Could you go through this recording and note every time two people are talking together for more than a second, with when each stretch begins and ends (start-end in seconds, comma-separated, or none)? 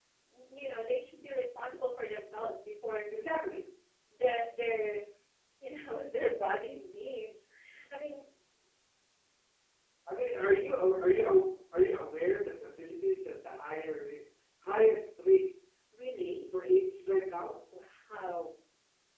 none